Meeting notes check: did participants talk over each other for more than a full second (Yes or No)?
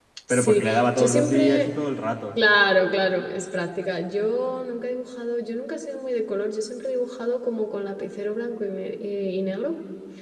Yes